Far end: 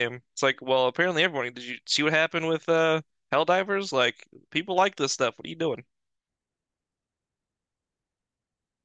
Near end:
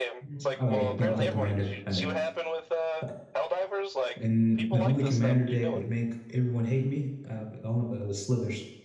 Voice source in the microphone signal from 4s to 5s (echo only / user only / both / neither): both